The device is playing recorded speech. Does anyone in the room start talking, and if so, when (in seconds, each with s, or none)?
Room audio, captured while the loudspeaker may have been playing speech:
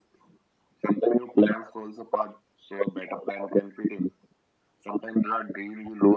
none